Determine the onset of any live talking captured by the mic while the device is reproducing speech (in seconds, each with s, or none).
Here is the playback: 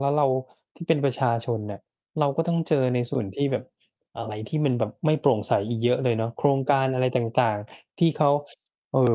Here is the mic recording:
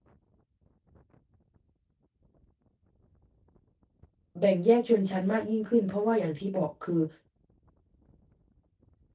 4.4 s